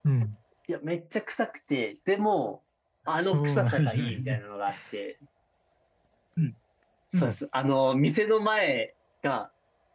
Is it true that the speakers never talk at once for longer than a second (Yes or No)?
No